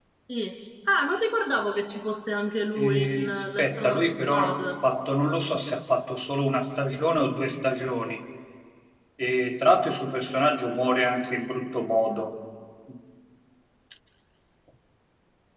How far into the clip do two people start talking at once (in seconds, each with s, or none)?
2.8 s